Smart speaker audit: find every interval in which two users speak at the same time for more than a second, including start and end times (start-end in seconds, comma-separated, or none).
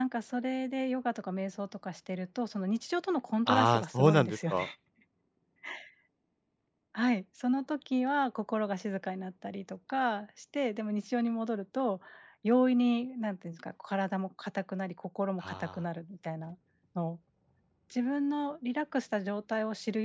3.5-4.7